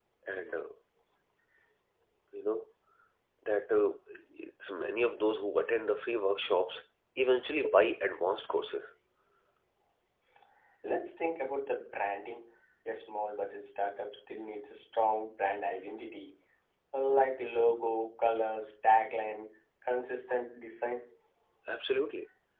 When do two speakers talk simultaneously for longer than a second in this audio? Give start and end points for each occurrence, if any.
none

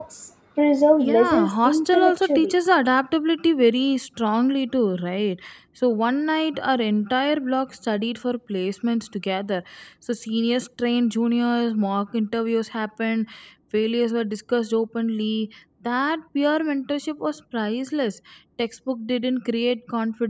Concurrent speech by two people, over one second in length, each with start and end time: 1.0-2.5

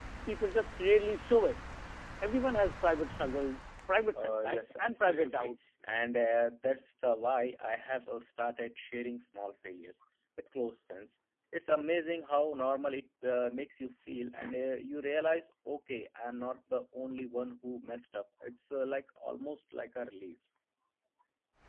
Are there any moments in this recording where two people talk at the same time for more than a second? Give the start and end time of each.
4.1-5.6

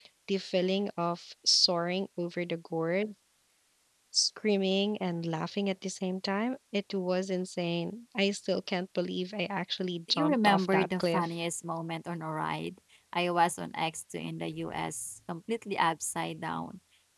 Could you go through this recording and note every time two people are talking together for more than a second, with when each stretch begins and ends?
10.1-11.3

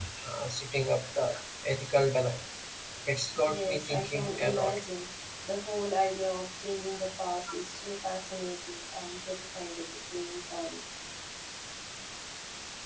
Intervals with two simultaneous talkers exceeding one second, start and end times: 3.4-4.8

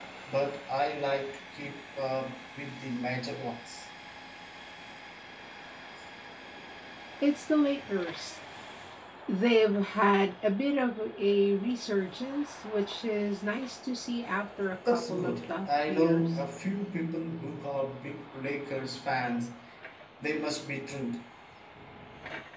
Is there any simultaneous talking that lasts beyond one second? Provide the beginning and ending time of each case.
14.9-16.4

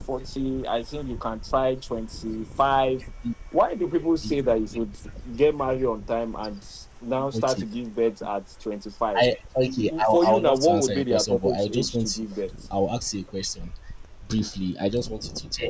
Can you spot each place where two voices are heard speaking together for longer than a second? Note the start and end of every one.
10.1-12.2

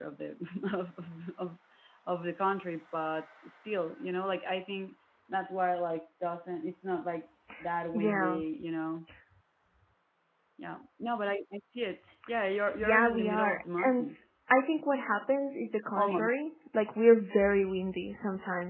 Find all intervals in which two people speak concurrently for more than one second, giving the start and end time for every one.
12.8-14.1

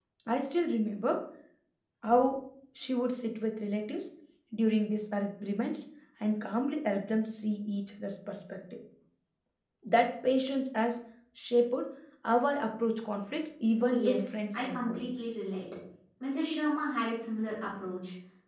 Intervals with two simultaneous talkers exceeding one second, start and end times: 13.8-15.3

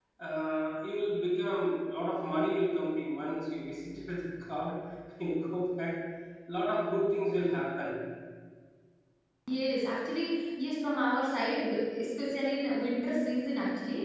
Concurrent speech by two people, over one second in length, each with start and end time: none

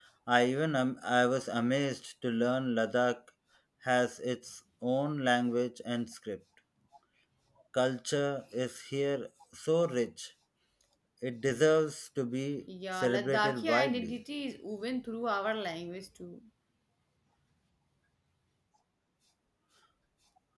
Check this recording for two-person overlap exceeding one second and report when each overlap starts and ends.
12.9-14.1

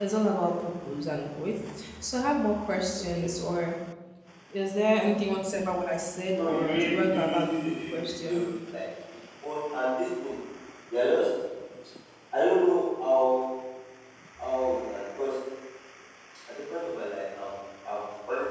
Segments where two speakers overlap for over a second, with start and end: 6.4-8.4

